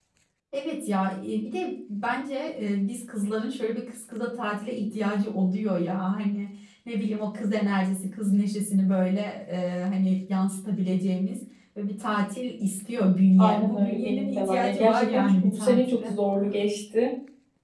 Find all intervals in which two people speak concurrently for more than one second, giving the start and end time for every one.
13.4-16.1

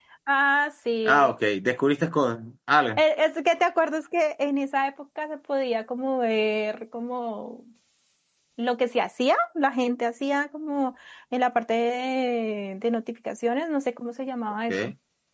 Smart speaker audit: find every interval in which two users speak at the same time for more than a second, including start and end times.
none

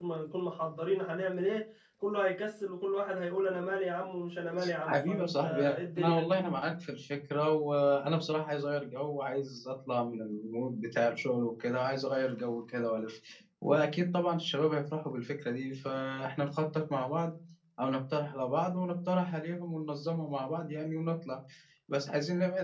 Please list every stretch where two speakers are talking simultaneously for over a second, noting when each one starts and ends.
4.9-6.2

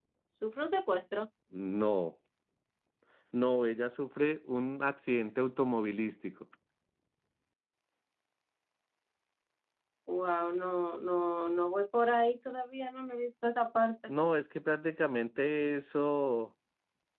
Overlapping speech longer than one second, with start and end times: none

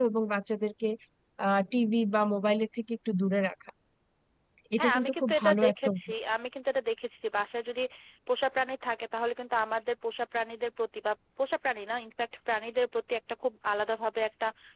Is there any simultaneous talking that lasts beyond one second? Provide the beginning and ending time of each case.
4.8-6.0

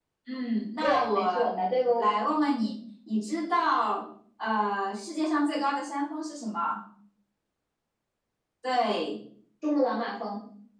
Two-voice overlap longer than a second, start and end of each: 0.8-2.1

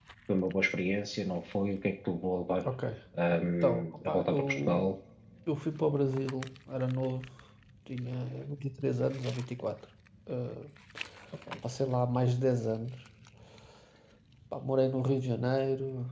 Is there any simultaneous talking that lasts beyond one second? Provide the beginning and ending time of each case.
3.6-4.9

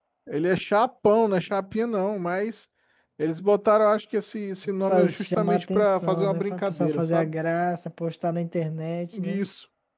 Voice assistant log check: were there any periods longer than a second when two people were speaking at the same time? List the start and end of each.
4.9-7.3

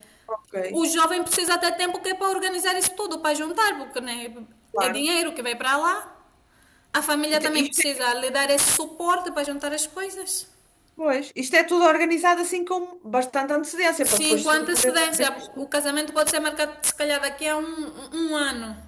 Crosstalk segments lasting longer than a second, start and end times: 14.0-15.6

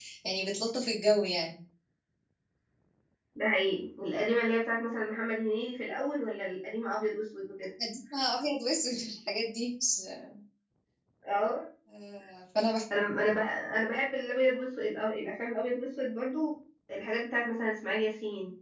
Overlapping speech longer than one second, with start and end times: none

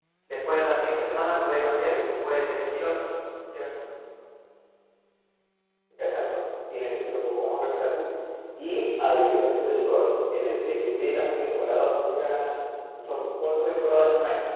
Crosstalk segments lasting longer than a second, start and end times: none

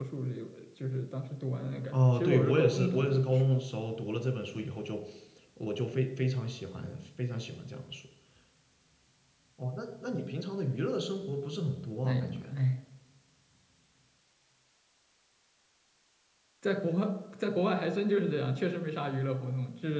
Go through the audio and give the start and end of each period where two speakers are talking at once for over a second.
1.9-3.3

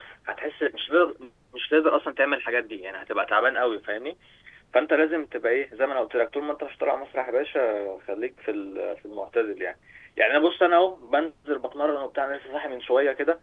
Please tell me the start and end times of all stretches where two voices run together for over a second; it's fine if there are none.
none

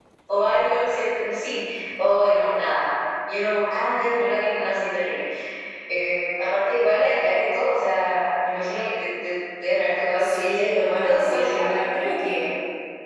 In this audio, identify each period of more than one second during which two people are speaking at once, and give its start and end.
10.2-11.8

